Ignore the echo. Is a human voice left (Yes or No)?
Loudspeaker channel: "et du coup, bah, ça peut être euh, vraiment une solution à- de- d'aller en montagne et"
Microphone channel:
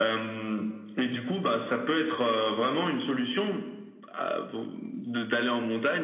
No